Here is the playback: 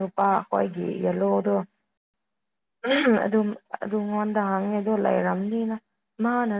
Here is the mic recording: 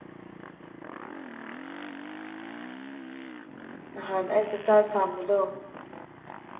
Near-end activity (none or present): present